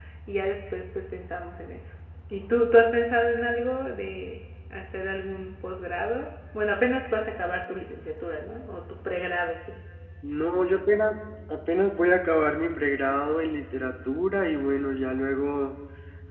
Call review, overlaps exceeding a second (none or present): none